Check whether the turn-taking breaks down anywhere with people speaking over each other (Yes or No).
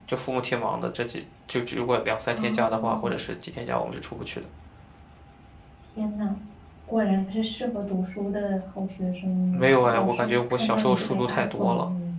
Yes